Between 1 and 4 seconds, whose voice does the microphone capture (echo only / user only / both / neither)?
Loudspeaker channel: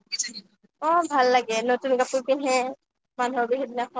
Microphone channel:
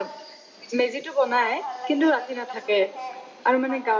both